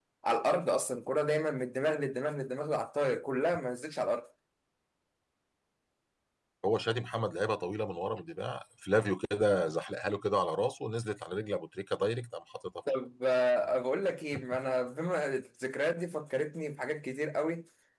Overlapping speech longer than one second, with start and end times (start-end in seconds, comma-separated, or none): none